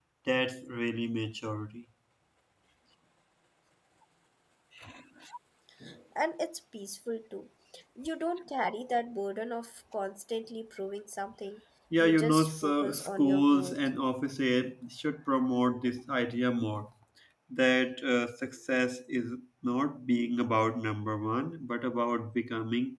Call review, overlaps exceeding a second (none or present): present